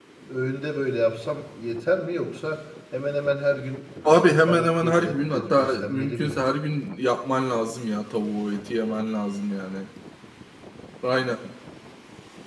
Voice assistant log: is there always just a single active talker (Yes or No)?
No